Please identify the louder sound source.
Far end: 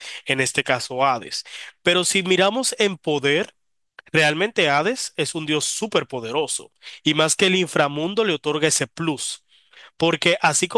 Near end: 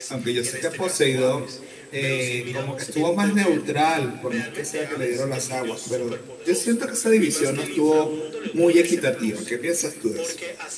user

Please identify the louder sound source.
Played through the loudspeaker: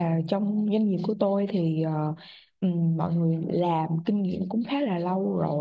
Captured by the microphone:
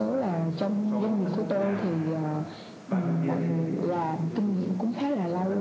echo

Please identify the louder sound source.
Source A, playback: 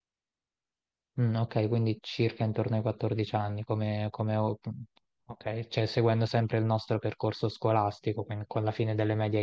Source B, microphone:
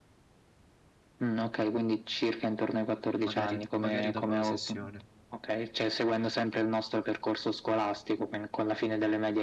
echo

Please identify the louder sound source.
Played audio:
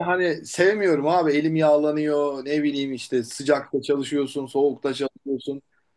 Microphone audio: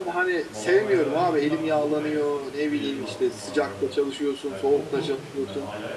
echo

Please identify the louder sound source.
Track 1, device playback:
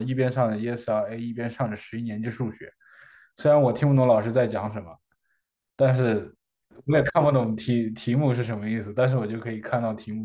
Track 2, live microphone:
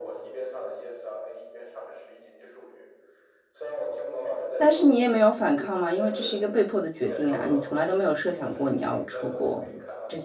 user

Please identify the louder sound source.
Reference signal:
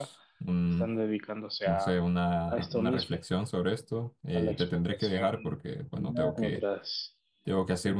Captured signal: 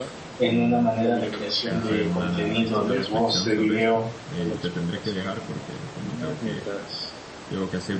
user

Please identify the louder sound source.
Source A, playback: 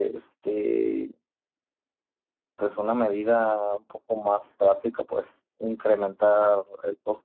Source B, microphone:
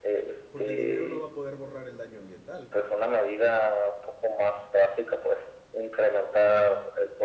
echo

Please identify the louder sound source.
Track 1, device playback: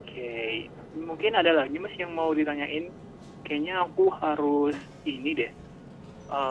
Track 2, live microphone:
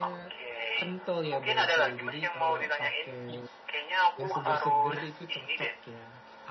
echo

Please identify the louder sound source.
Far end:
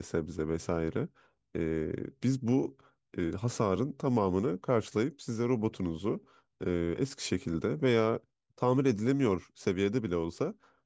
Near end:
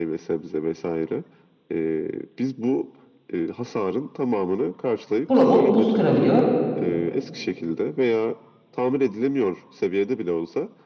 user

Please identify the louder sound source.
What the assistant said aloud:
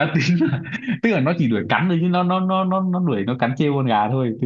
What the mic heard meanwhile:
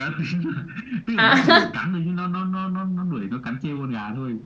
user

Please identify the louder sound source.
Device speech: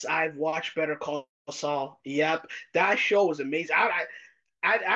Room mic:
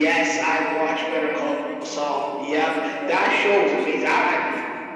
echo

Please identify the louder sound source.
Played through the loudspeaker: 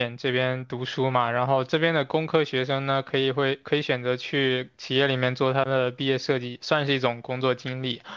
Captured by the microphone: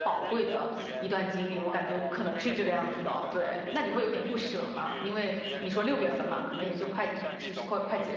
user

